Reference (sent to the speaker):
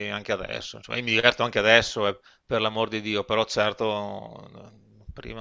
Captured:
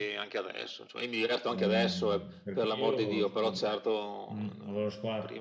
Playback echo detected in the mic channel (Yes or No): Yes